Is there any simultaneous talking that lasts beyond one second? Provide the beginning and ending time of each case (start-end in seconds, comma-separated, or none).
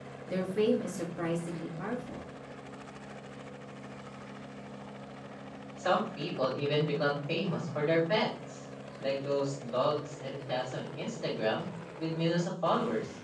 none